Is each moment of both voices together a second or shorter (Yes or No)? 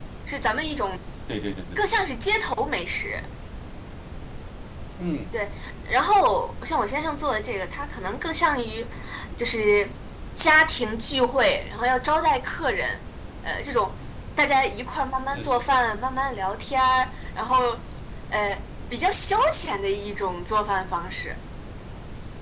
Yes